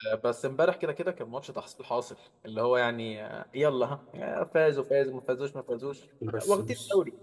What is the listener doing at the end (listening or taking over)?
taking over